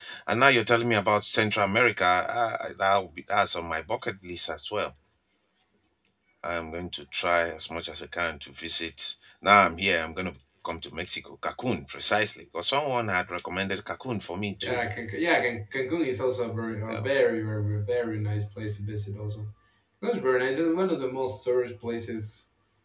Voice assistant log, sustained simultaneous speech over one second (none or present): none